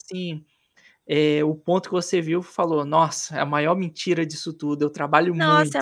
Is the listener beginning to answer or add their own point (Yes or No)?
Yes